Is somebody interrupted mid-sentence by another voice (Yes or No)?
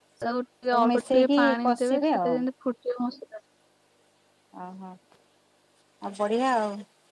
Yes